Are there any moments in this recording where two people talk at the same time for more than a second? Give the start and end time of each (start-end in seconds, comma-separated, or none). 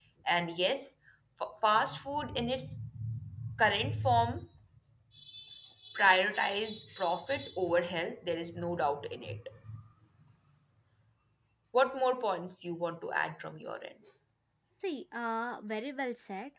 none